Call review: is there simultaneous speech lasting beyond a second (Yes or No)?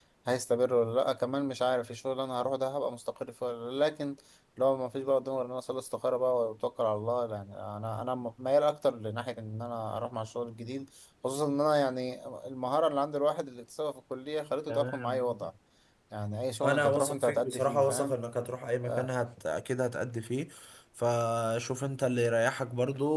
Yes